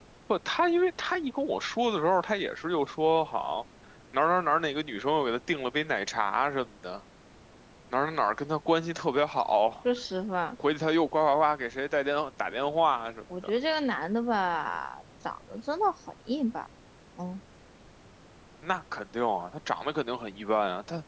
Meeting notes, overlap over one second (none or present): none